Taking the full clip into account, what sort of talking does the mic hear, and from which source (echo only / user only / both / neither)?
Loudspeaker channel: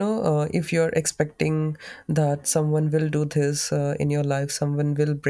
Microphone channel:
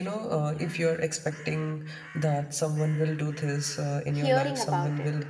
both